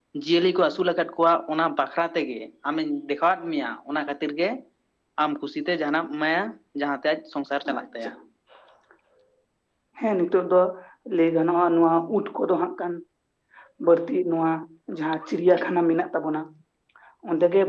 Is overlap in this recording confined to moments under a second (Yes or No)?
Yes